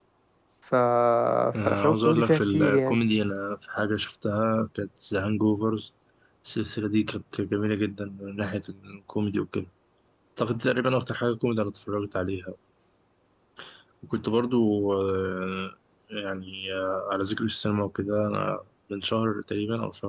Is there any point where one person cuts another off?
Yes, from 1.6 s

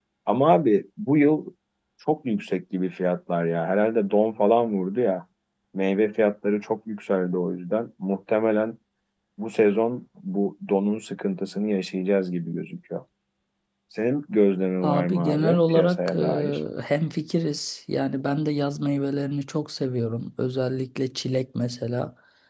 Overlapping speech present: Yes, from 14.8 s

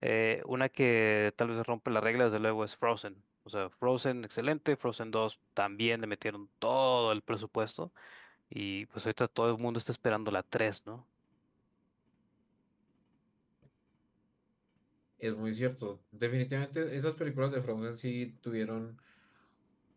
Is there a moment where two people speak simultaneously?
No

